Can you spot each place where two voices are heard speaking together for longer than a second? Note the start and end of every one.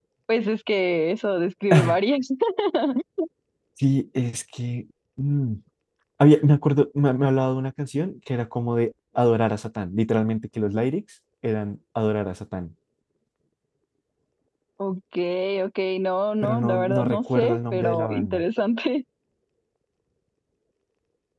16.4-18.4

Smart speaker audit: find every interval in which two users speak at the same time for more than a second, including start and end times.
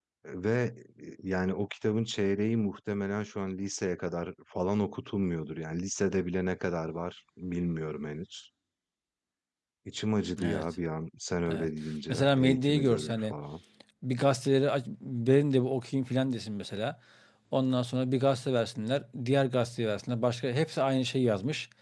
12.1-13.3

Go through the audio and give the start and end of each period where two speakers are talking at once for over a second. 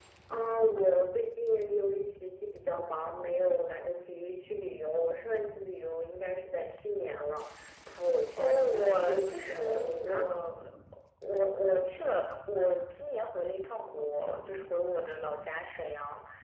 8.4-10.3

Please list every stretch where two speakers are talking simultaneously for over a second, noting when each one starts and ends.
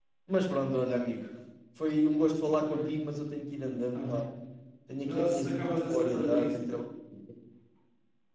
5.0-6.6

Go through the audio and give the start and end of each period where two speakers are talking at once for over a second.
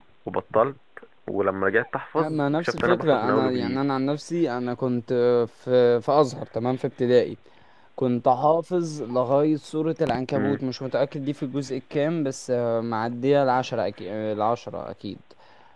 2.2-3.8

